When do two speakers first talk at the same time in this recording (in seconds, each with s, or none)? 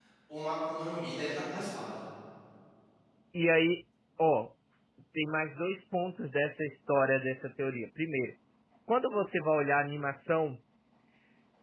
none